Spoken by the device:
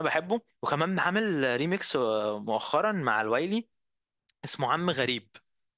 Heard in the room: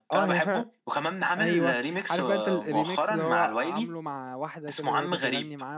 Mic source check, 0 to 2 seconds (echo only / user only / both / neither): both